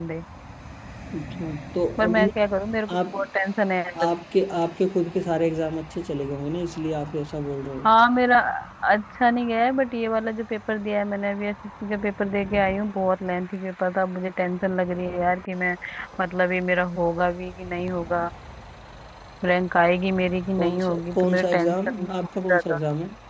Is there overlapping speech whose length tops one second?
Yes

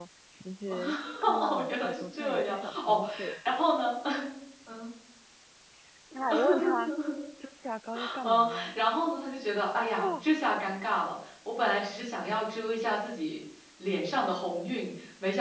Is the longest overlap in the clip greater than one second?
Yes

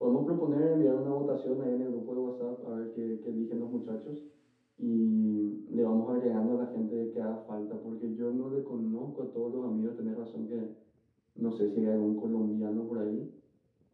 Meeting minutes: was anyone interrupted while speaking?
No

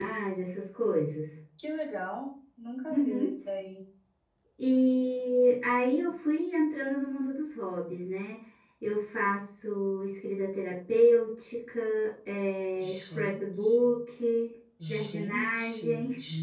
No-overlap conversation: No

